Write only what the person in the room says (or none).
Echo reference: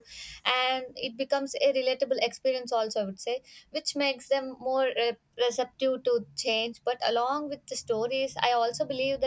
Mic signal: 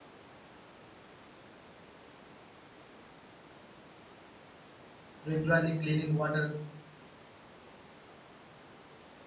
regularly cleaning water